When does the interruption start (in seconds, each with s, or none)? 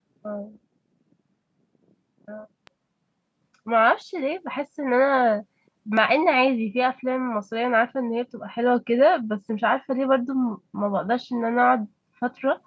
none